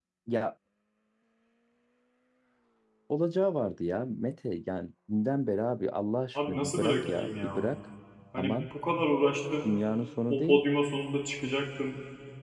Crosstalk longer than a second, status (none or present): present